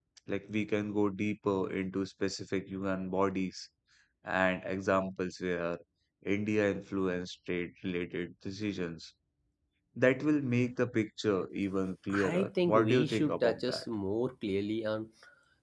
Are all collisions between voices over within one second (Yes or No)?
No